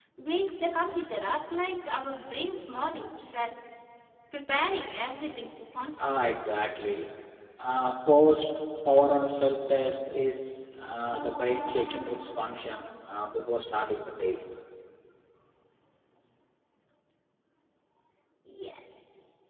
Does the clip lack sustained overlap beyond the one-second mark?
Yes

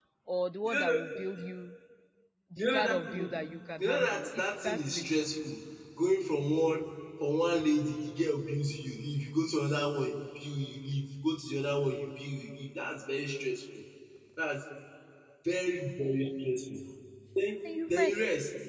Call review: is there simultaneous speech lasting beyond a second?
Yes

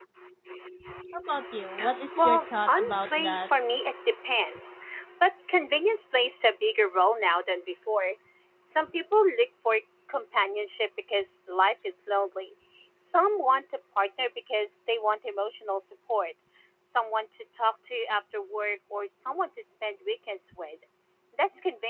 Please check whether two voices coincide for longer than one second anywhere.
Yes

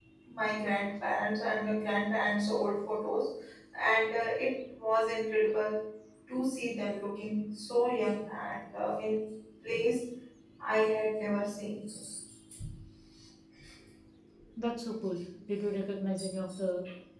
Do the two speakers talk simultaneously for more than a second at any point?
No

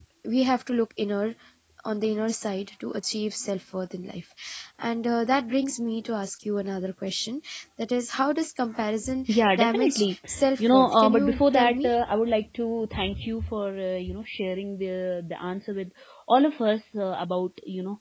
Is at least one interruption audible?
Yes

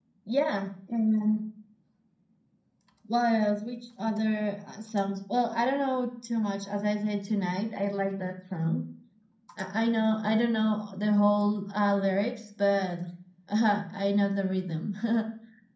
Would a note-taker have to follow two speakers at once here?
No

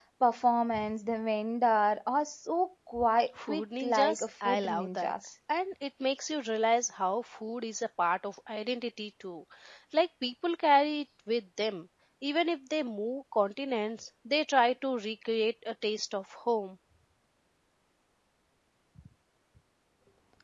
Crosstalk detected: Yes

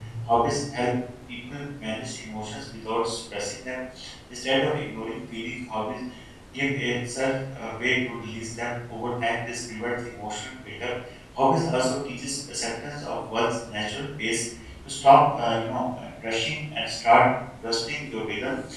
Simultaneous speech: No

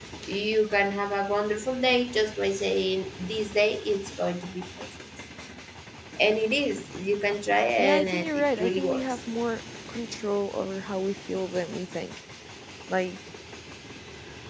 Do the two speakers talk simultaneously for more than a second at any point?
Yes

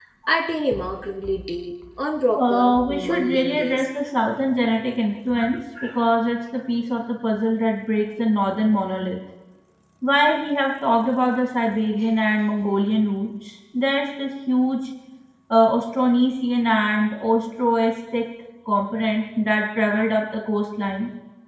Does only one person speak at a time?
No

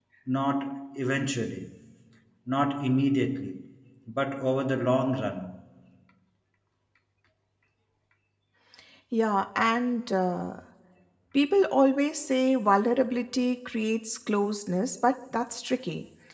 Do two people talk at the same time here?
No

